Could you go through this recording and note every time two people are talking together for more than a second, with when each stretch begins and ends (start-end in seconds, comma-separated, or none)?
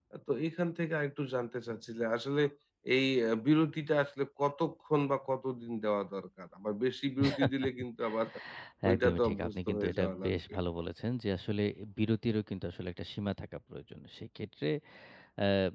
8.9-10.4